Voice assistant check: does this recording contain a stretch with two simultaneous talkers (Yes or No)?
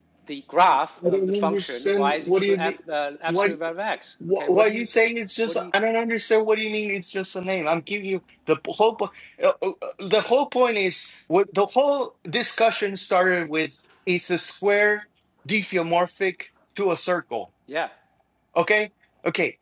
Yes